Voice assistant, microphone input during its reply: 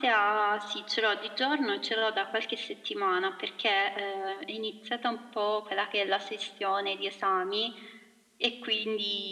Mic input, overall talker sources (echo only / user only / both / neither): echo only